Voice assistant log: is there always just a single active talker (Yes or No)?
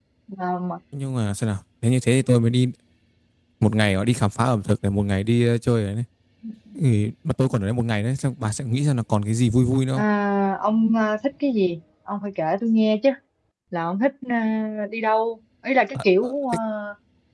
Yes